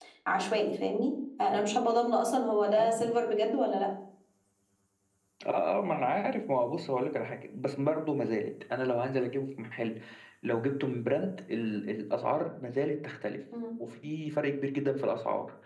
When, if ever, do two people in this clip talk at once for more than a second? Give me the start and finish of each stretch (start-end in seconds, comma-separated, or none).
none